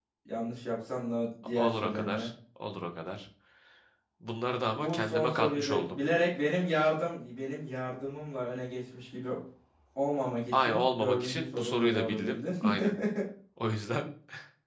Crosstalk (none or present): present